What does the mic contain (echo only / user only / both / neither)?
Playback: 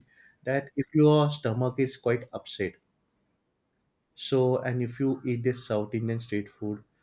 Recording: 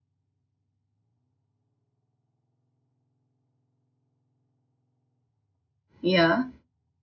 user only